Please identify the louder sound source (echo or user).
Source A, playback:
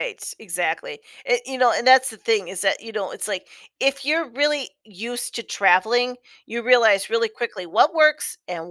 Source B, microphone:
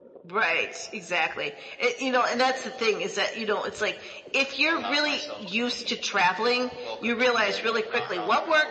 echo